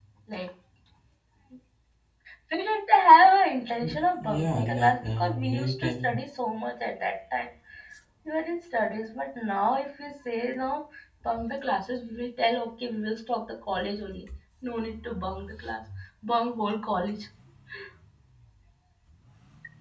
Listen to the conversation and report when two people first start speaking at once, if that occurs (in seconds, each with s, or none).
3.8 s